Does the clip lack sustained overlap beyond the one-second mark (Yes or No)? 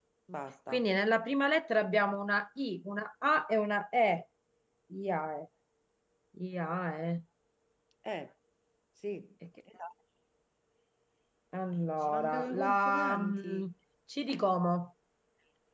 No